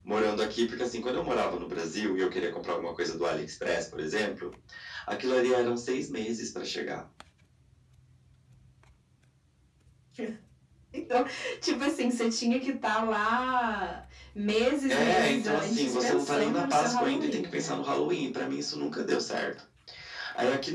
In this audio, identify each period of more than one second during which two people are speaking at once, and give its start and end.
14.9-17.8

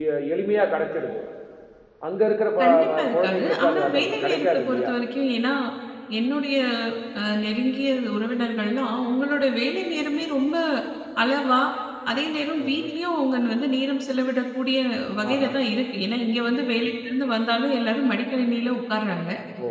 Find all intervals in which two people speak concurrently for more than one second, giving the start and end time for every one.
2.6-4.9

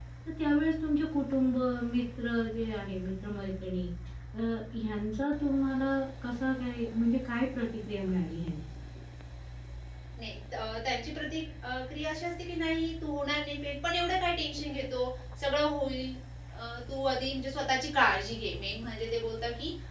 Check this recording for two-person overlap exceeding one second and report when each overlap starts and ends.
none

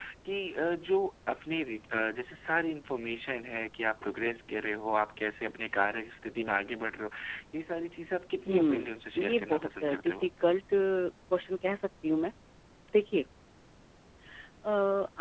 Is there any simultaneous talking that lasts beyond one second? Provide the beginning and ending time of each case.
8.5-10.3

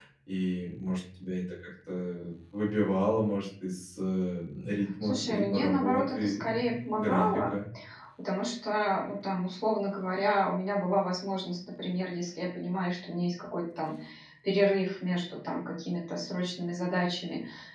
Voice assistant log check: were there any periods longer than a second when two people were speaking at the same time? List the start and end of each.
5.0-7.5

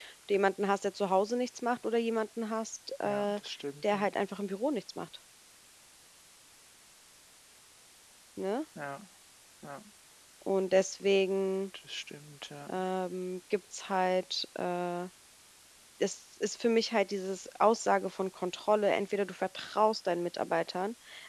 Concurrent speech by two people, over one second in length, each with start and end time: none

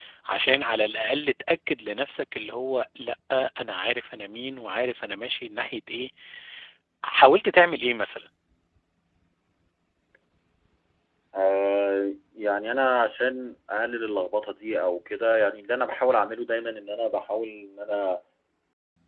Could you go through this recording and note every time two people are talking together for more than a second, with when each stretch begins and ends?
none

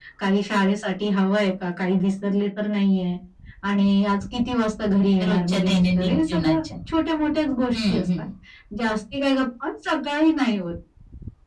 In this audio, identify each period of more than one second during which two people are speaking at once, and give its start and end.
5.2-6.6

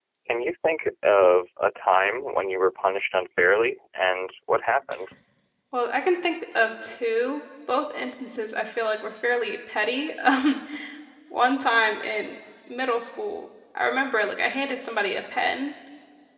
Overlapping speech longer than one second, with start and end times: none

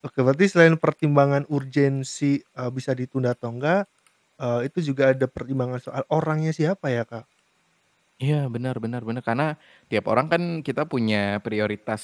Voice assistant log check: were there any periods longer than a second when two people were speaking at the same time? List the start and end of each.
none

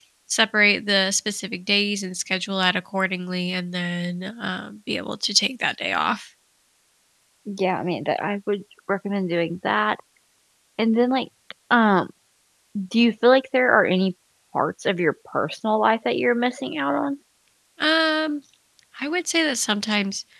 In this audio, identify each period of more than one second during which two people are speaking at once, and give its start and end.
none

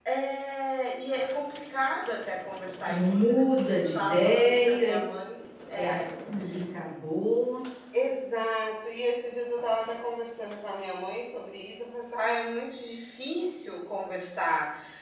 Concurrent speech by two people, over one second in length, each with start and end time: 2.8-4.9

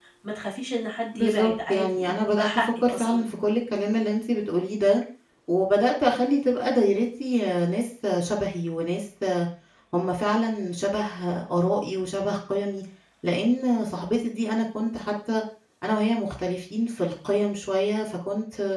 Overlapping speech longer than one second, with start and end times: 1.1-3.3

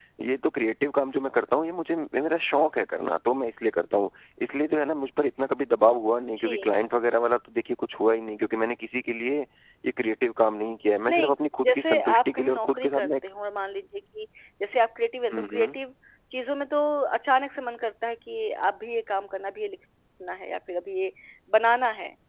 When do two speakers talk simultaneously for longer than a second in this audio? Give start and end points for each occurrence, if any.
11.1-13.1

